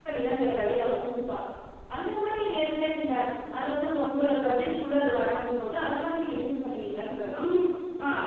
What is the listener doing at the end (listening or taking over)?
taking over